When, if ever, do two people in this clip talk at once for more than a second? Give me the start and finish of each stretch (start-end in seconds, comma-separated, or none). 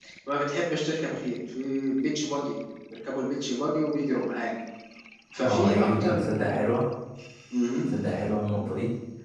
5.4-6.8